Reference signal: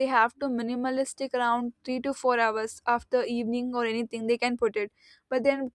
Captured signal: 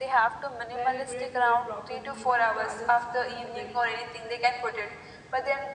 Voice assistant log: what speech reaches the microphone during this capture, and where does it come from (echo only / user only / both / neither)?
both